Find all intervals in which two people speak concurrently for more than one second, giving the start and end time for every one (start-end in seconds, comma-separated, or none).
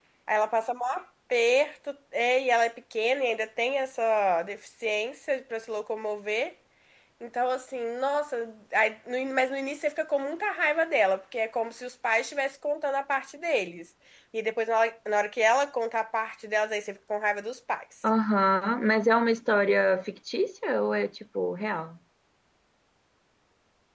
none